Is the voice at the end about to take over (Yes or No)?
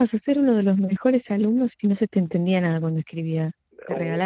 Yes